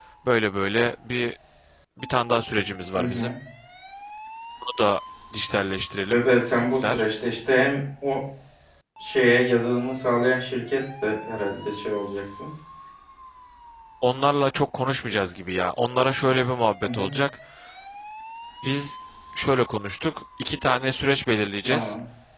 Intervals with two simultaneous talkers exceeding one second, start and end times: none

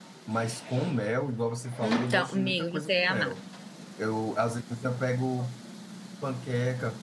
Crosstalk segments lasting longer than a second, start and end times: 1.8-3.3

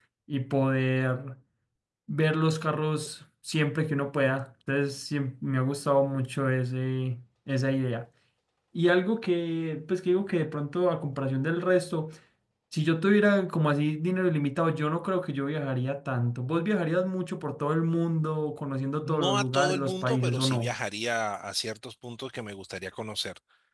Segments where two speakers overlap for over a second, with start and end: 19.0-20.8

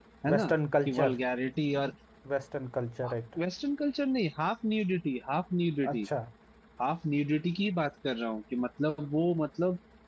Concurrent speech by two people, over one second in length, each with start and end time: none

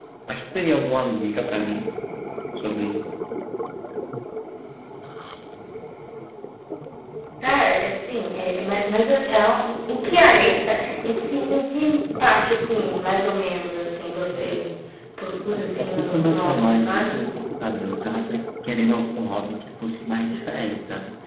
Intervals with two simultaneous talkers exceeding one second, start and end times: 15.8-17.2

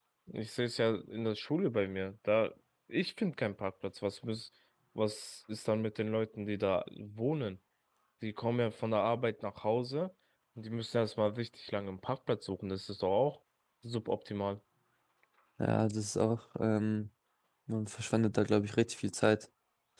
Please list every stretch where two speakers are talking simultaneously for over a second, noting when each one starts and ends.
none

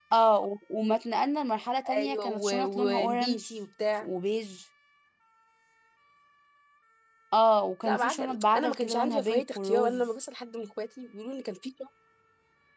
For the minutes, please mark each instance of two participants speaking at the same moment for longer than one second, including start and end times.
1.9-3.5, 7.8-10.0

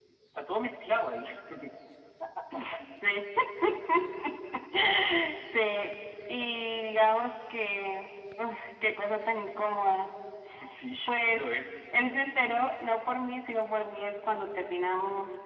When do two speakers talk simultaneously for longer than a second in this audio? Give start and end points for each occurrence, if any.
none

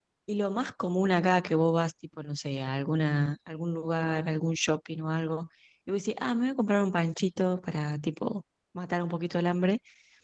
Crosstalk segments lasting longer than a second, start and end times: none

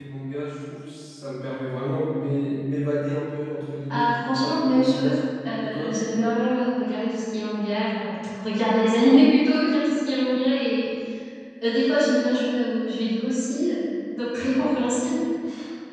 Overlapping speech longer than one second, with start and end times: 3.9-5.2

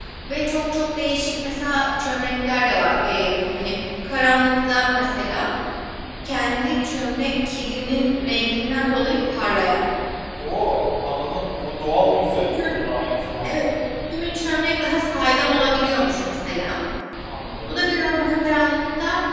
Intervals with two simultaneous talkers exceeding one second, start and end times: none

